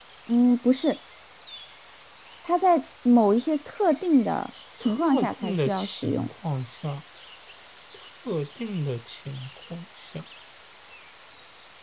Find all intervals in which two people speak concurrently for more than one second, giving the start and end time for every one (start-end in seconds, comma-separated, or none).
4.8-6.3